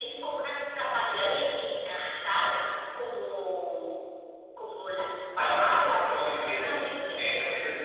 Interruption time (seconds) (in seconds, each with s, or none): 5.4 s